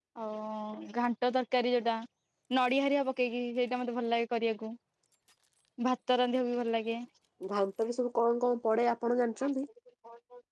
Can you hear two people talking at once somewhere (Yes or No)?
No